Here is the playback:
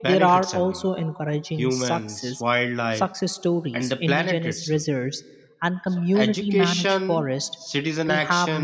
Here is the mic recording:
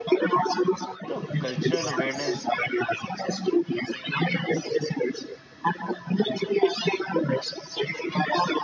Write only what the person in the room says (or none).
you know, cultural awareness